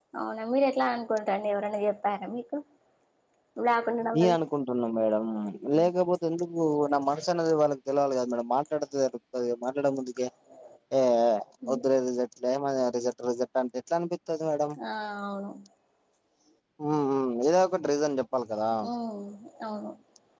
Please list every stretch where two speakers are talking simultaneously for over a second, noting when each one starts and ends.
none

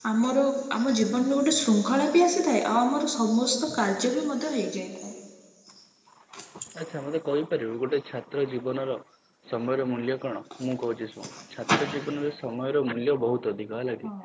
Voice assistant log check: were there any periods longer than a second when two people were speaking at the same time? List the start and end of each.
none

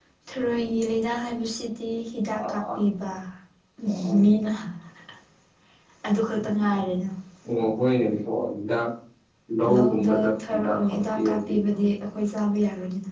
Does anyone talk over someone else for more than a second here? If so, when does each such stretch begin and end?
9.7-11.5

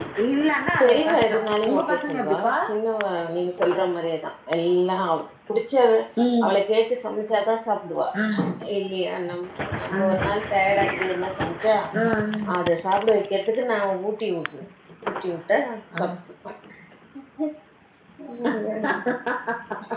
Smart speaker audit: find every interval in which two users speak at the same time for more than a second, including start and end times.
0.8-2.5

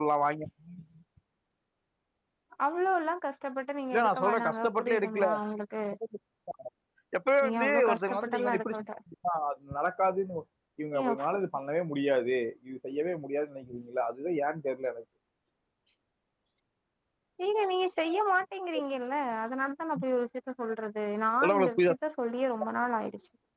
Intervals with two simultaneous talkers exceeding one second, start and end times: 3.9-5.3, 7.4-8.8

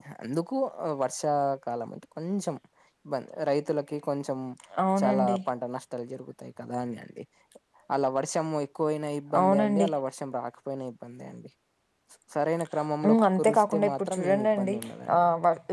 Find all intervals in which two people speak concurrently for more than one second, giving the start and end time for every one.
13.1-14.7

